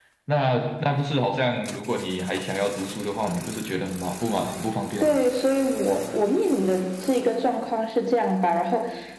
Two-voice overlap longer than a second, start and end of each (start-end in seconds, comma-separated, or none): none